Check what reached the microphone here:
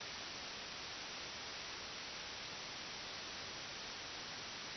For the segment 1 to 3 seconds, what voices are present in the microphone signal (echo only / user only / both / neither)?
neither